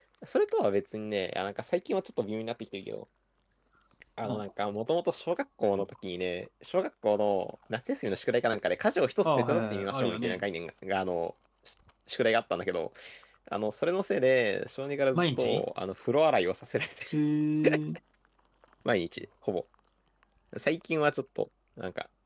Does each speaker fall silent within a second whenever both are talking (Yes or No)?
No